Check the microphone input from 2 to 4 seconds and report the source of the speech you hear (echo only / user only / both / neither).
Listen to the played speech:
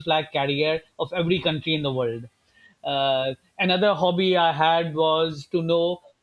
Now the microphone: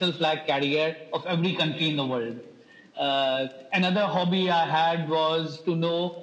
echo only